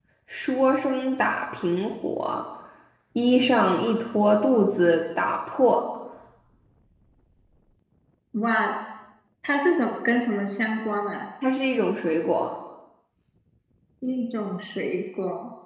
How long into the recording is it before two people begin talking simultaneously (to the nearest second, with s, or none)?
none